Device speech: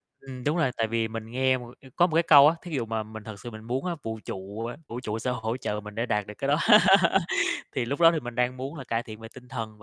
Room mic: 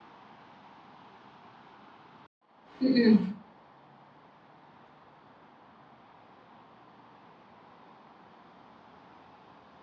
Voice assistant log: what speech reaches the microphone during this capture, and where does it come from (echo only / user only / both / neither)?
user only